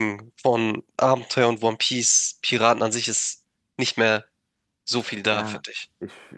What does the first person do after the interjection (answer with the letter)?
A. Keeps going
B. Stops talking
B